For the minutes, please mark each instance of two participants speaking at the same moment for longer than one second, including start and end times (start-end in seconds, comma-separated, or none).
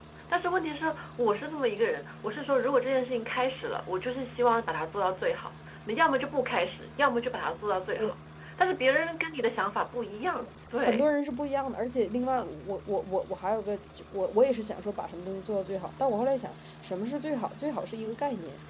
none